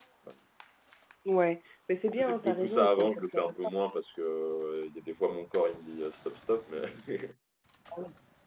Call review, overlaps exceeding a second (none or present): present